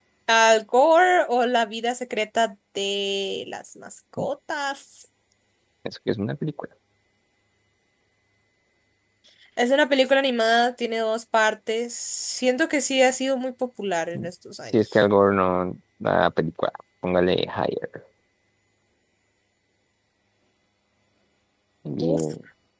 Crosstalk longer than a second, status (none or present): none